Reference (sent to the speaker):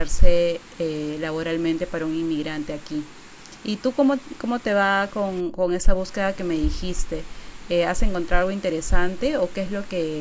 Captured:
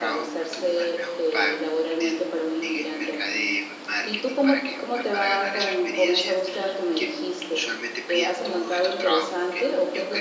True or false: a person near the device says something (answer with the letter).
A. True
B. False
A